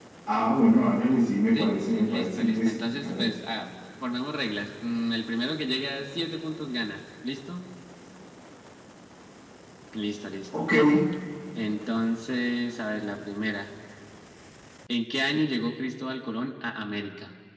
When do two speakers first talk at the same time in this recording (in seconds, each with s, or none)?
1.6 s